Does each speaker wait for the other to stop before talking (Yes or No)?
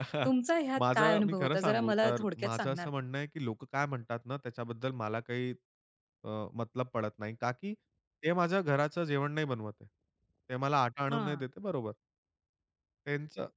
No